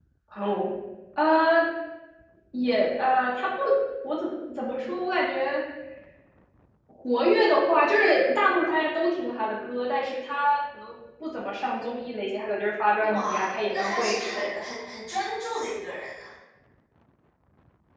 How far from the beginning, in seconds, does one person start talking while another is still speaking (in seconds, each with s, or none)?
13.0 s